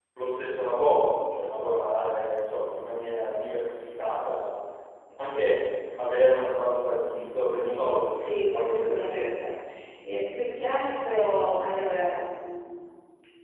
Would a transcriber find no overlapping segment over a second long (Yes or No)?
No